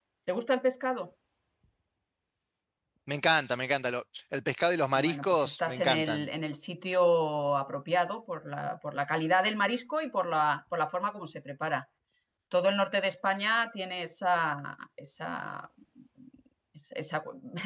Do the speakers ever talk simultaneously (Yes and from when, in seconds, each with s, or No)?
Yes, from 5.0 s